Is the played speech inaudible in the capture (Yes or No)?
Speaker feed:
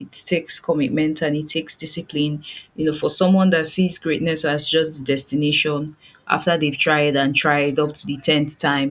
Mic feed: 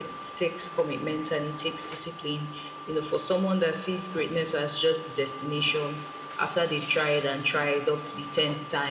No